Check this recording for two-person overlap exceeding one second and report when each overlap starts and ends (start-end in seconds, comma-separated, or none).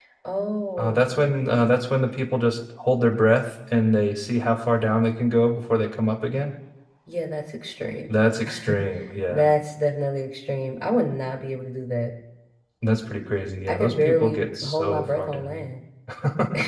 13.7-15.6